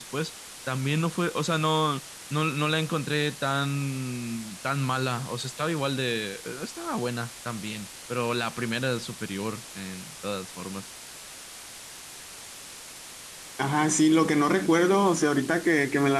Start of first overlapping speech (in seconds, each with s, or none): none